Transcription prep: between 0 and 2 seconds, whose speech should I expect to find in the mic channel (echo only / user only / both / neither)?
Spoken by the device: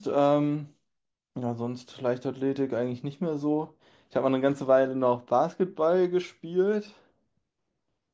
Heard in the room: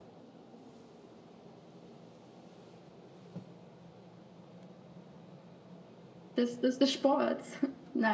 neither